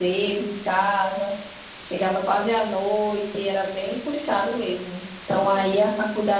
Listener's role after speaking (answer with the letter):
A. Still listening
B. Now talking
A